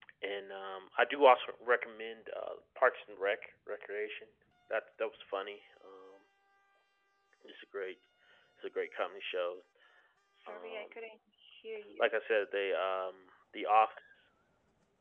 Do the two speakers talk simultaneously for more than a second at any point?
No

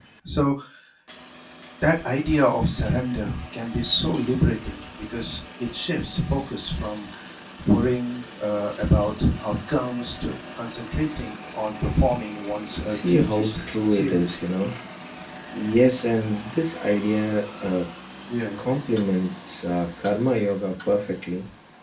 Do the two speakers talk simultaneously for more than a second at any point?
Yes, from 12.8 s

